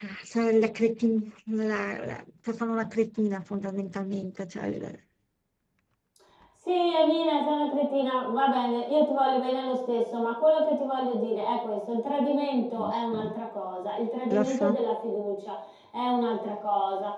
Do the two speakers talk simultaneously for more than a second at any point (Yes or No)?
No